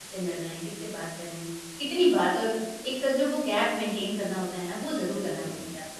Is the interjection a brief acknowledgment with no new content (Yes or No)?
No